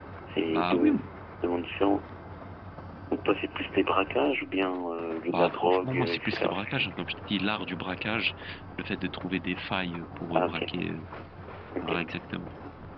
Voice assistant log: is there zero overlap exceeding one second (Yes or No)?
No